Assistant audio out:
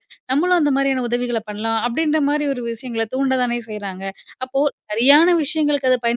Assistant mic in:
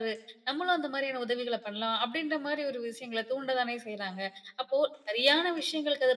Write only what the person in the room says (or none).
none